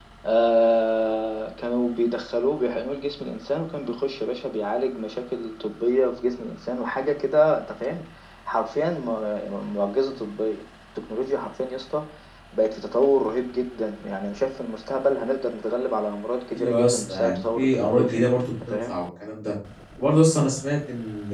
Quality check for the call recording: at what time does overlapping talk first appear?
16.5 s

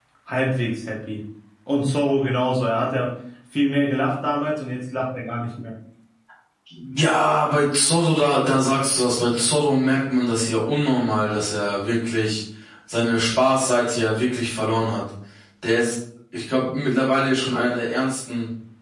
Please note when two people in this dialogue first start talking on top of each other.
none

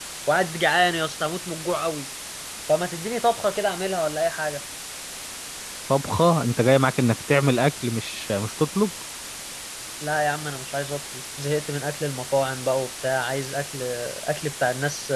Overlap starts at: none

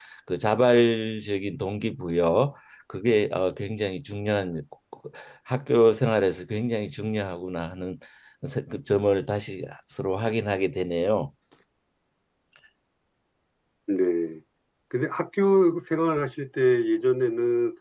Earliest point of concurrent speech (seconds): none

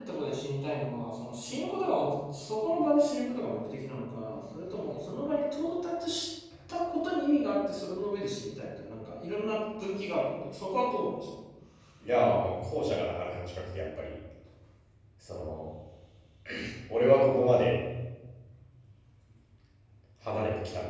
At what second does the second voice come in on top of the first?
none

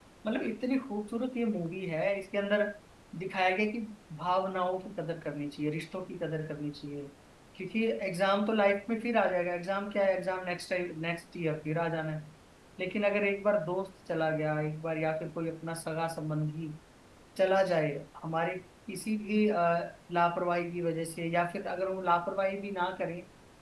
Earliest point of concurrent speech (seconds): none

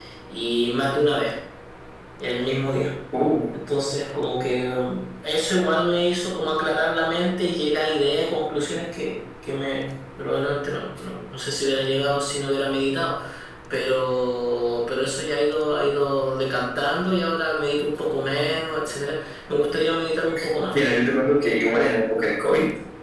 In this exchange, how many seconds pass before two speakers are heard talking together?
none

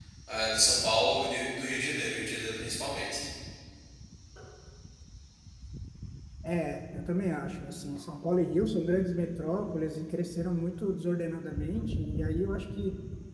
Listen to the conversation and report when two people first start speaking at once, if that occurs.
none

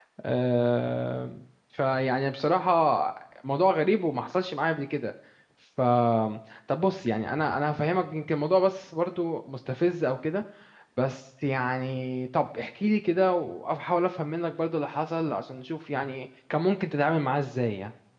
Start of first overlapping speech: none

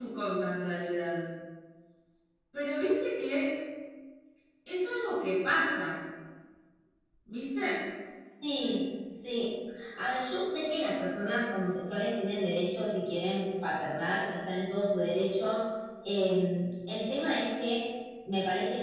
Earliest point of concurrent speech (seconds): none

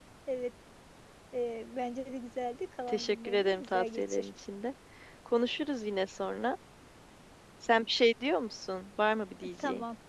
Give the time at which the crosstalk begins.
2.9 s

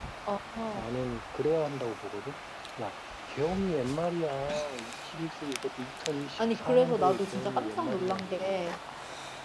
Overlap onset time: 6.4 s

